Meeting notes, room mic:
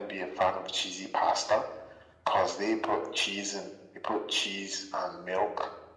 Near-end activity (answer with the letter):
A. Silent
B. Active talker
A